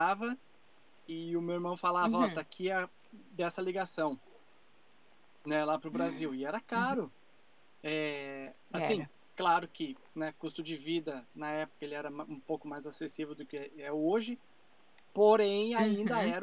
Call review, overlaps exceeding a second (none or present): none